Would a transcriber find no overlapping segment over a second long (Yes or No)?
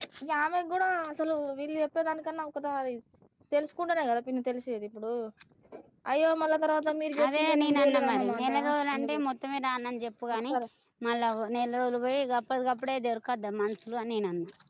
No